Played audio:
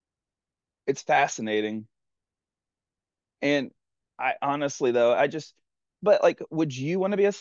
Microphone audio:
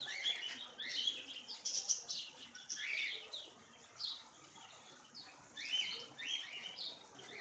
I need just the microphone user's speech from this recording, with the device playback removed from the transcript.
none

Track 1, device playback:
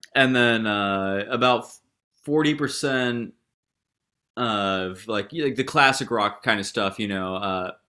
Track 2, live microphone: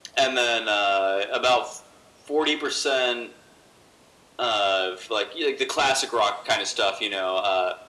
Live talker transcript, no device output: none

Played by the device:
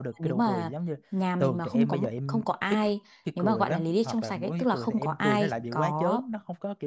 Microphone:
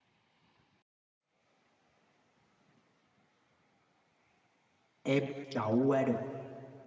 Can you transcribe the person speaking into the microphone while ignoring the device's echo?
em đậu qua được

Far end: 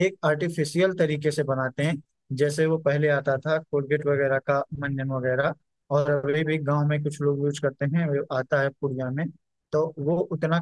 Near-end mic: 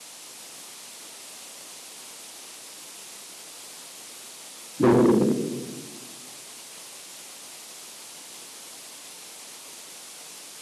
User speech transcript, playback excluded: बिल्कुल

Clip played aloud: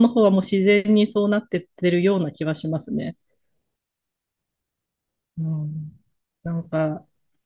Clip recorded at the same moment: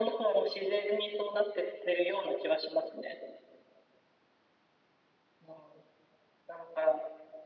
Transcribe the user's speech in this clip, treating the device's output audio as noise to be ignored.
none

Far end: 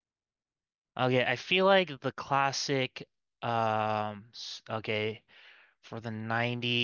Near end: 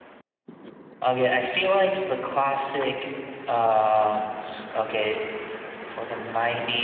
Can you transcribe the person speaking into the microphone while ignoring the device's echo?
none

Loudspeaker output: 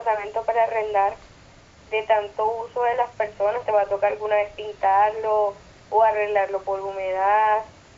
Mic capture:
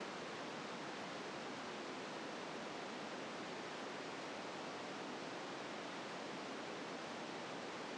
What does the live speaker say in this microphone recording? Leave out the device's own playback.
none

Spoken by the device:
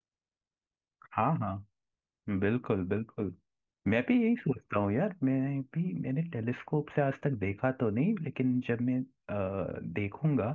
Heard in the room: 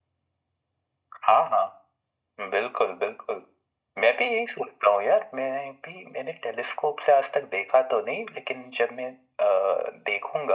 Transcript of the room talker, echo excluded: none

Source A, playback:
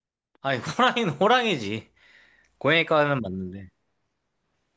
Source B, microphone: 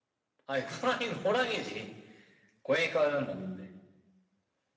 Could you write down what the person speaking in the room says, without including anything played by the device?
none

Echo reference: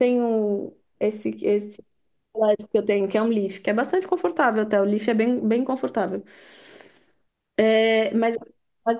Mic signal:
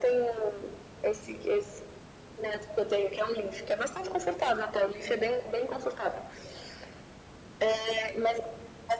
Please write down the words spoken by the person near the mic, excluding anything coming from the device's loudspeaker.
none

